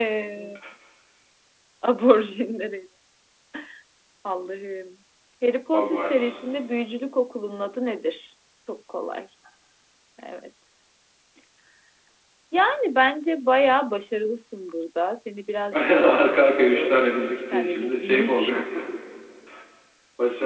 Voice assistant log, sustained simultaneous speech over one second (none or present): present